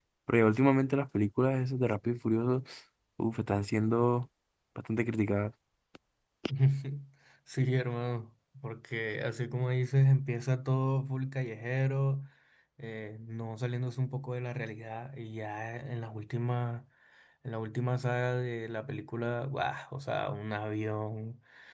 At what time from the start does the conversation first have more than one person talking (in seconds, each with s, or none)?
none